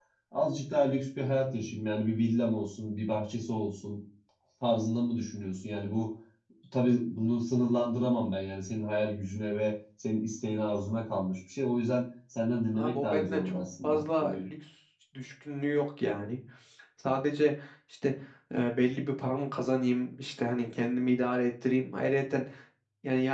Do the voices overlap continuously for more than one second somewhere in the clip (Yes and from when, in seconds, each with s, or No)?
Yes, from 12.7 s